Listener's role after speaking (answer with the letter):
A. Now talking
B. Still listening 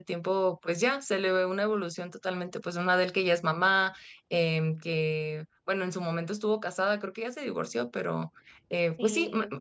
B